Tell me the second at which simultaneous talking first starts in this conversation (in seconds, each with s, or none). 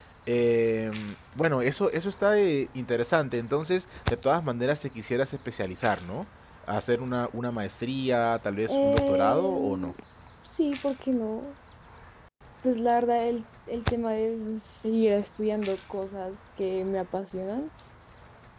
8.7 s